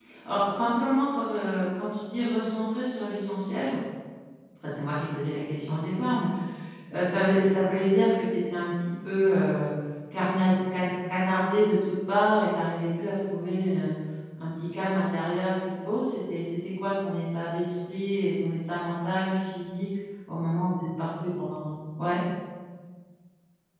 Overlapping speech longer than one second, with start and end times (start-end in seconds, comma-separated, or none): none